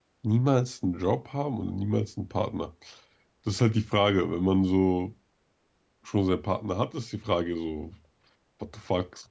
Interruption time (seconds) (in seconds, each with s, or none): none